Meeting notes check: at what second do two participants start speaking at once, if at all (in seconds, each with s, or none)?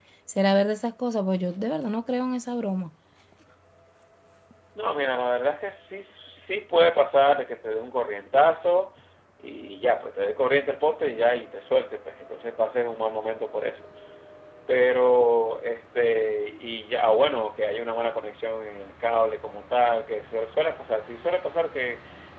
none